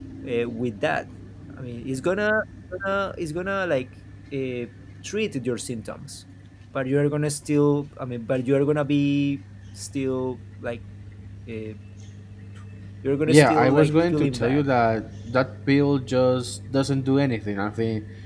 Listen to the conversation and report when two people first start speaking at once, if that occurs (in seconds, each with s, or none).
13.3 s